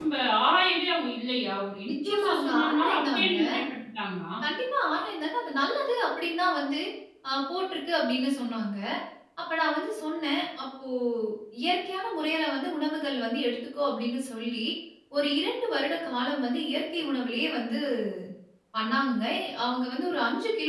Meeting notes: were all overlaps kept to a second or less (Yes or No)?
No